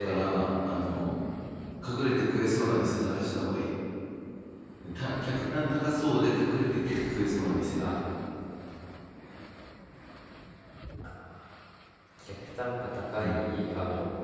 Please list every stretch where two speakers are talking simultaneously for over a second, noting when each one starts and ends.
none

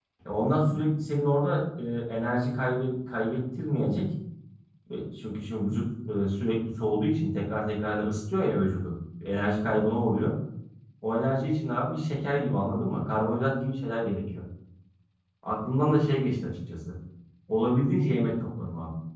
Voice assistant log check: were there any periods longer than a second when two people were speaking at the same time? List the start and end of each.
none

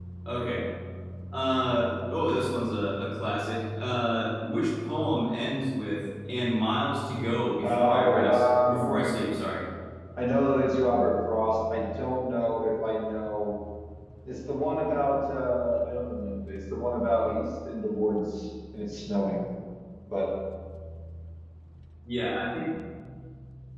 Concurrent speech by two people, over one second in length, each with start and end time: 7.6-9.0

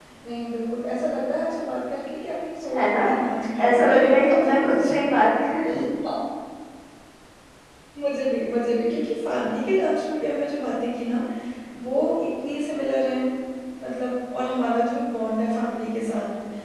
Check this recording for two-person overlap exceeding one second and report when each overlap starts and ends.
3.7-4.9

